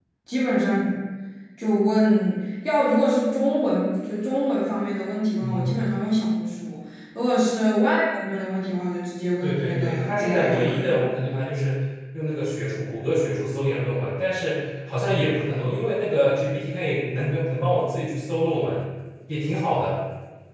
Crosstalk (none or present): present